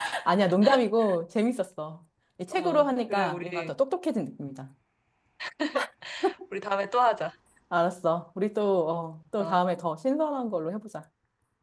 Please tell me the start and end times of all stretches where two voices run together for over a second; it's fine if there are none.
2.5-3.7

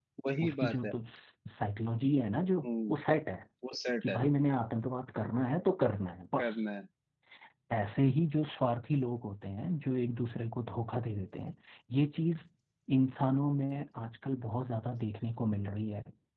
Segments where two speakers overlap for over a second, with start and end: none

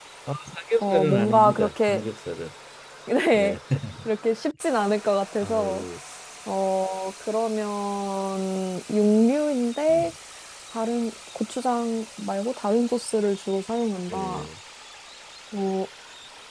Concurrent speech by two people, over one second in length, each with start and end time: 0.8-2.1

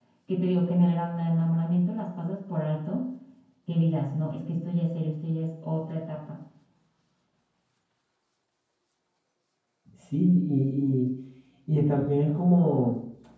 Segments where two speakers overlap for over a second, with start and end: none

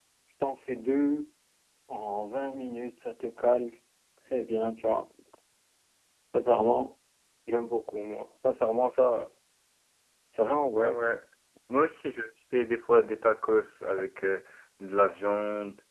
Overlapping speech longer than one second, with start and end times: none

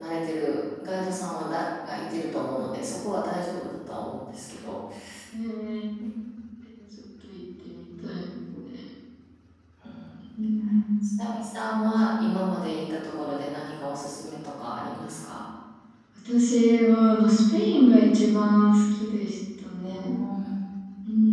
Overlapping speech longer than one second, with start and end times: none

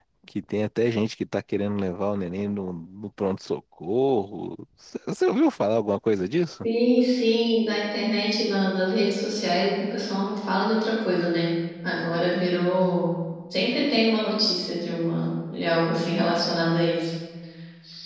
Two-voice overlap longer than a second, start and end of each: none

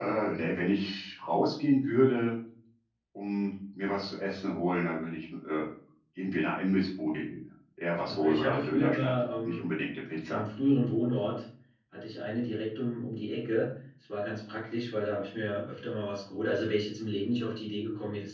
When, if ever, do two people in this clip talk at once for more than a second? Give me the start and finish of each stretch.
8.1-9.6

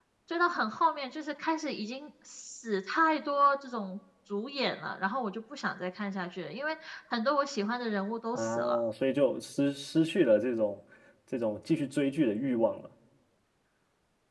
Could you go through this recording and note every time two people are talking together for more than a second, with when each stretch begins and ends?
none

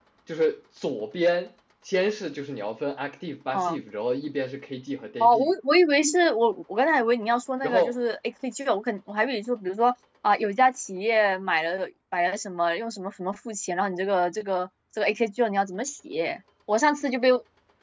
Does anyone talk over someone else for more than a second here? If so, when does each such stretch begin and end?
none

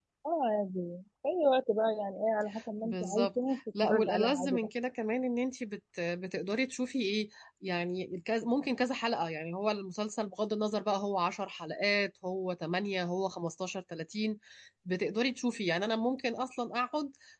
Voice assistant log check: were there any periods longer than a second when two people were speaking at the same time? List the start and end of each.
2.8-4.7

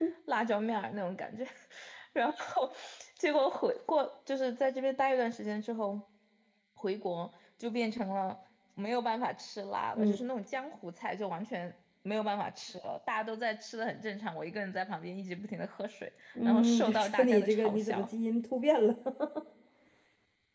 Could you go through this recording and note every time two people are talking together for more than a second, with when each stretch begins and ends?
16.4-18.1

